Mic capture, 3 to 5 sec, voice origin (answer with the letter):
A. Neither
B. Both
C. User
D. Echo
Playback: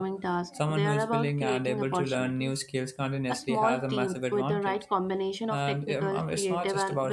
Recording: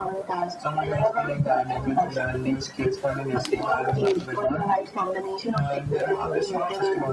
D